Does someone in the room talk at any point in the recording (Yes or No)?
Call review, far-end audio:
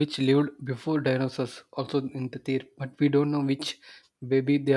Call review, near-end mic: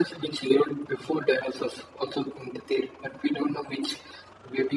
No